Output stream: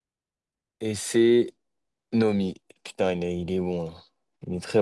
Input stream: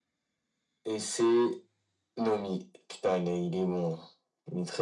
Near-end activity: none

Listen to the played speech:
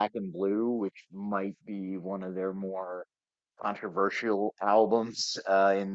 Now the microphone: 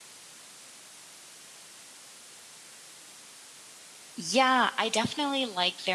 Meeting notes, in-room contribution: present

